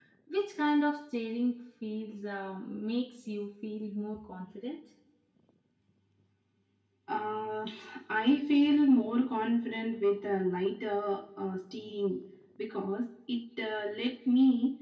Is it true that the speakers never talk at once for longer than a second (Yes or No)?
Yes